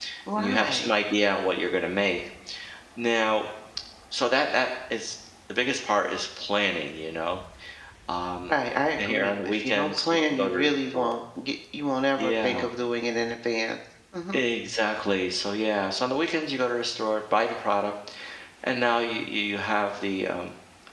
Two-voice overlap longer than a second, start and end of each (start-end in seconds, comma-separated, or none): 9.0-11.1